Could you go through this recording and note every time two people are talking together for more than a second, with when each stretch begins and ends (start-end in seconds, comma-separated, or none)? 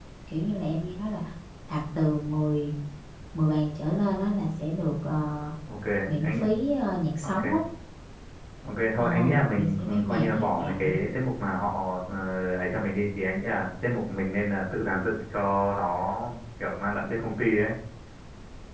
9.0-10.6